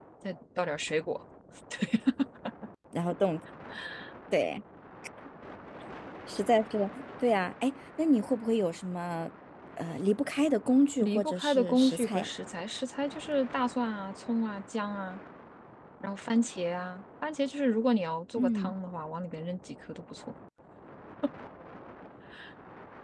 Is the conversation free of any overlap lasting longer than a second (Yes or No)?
No